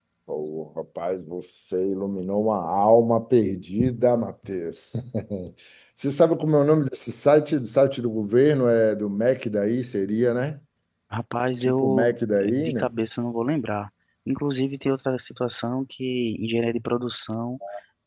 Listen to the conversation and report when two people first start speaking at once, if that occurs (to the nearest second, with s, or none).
12 s